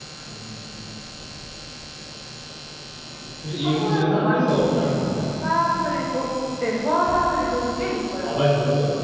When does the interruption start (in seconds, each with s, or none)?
3.6 s